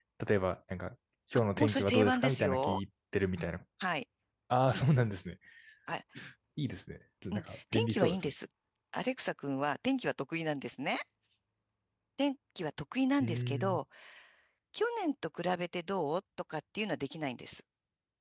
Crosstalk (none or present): present